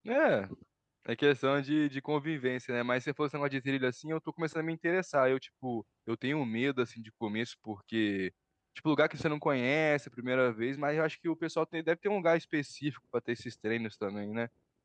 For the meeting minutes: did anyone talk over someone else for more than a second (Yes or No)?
No